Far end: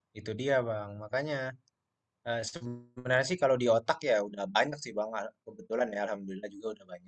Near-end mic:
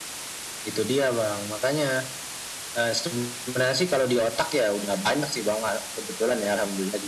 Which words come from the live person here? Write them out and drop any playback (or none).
none